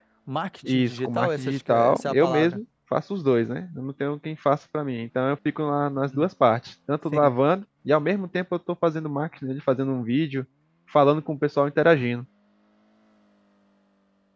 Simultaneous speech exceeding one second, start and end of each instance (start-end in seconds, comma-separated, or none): 0.7-2.6